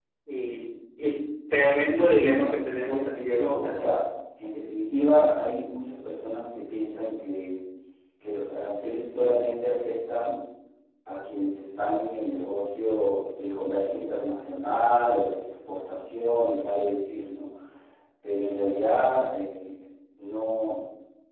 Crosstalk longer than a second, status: present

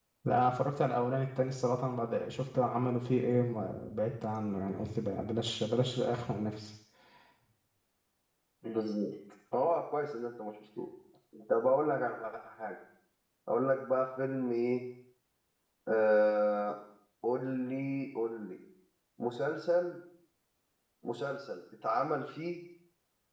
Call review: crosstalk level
none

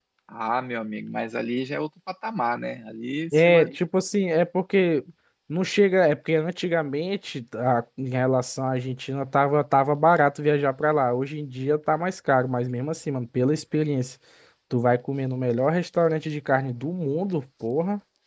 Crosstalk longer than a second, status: none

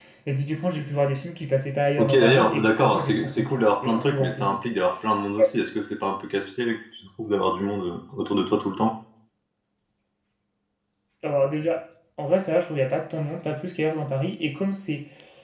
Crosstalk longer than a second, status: present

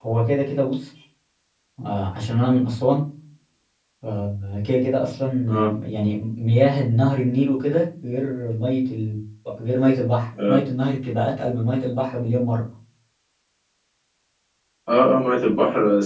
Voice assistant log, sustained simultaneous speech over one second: none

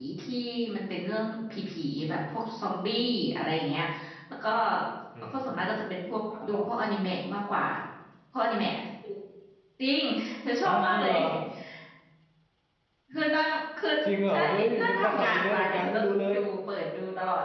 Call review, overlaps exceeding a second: present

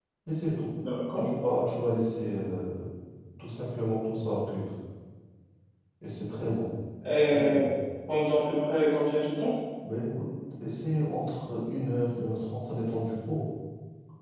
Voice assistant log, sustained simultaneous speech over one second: none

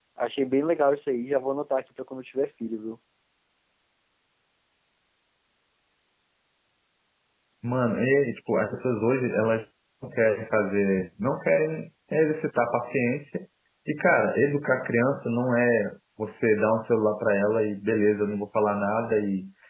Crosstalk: none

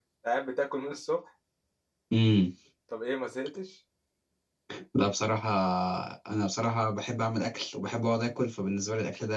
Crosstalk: none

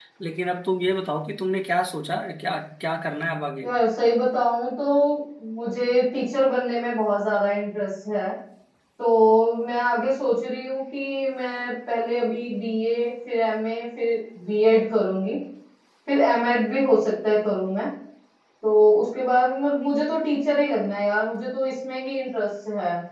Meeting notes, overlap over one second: none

